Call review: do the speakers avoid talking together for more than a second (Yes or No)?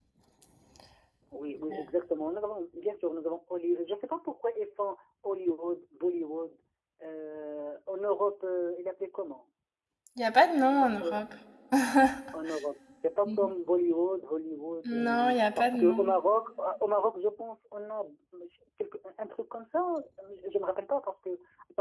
Yes